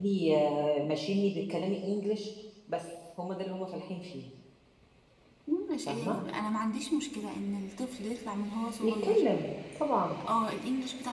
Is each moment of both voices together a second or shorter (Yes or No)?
Yes